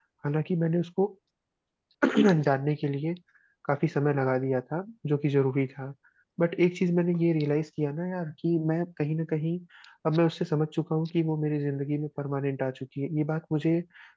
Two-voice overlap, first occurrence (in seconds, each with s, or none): none